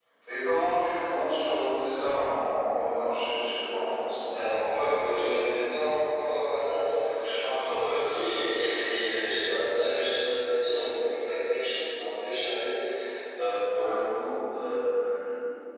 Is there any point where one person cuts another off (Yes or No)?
No